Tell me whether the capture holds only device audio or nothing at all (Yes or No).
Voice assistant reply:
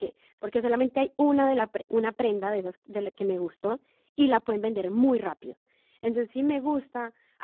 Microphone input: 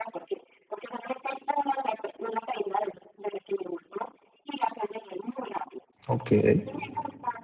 No